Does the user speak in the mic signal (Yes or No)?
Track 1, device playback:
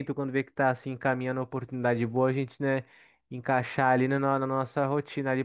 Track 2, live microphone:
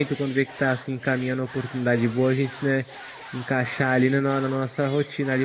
No